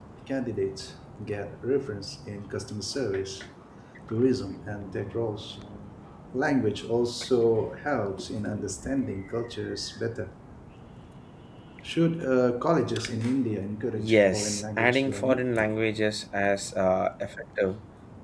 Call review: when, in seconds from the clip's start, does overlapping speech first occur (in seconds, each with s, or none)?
14.1 s